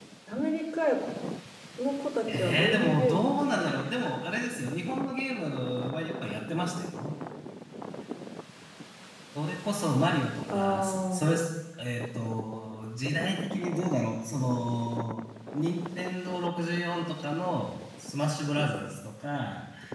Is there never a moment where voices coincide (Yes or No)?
No